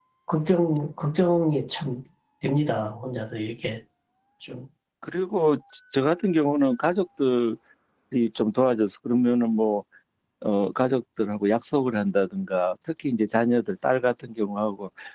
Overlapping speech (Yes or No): No